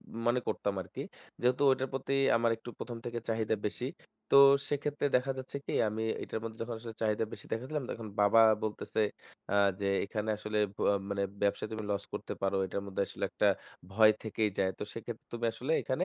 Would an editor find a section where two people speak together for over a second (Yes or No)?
No